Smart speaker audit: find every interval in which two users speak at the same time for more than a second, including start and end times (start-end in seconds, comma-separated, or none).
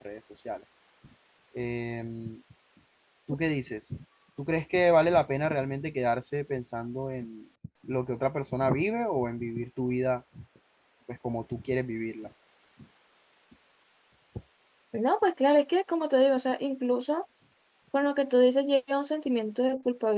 none